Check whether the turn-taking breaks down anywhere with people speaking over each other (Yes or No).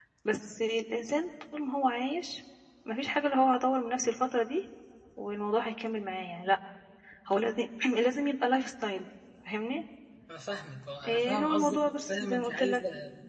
Yes